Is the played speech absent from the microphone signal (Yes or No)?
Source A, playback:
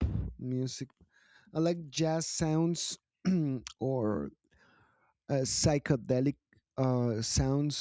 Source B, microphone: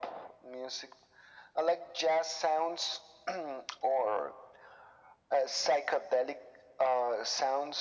No